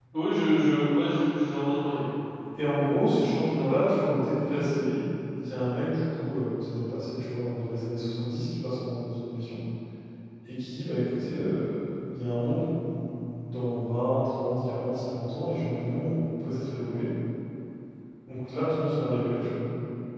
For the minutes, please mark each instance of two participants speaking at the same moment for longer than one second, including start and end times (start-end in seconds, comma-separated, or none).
none